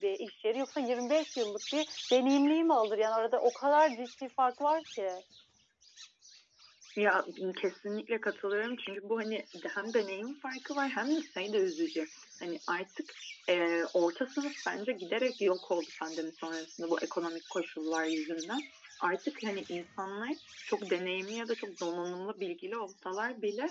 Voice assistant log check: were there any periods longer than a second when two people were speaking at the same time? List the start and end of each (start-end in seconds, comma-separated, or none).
none